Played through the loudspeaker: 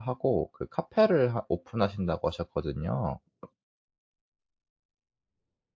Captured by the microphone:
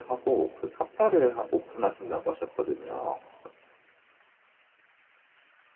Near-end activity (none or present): none